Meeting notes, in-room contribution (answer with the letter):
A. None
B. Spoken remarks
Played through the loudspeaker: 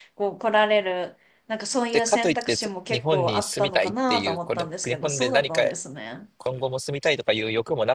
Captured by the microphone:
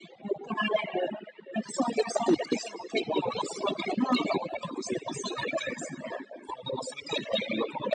A